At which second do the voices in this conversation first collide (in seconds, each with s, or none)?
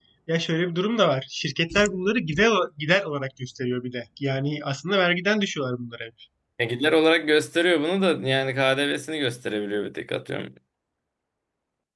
none